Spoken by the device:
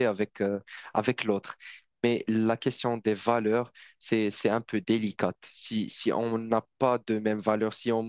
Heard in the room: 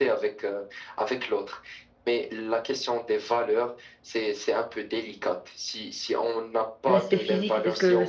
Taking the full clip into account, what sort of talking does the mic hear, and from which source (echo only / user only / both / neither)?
both